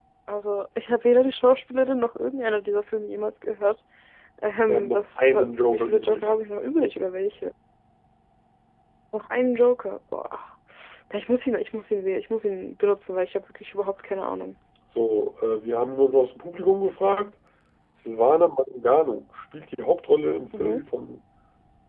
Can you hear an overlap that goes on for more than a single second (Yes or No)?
Yes